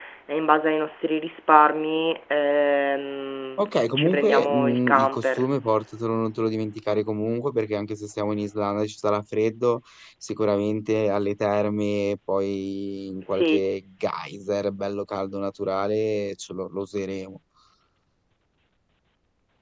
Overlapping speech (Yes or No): Yes